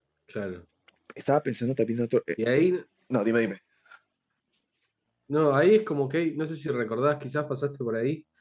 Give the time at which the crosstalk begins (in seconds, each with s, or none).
none